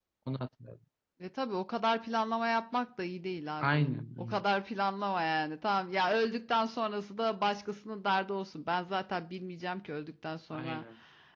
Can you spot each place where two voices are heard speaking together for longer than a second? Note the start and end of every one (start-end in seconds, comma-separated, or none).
none